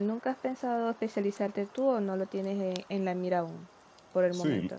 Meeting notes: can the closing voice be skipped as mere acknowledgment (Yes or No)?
No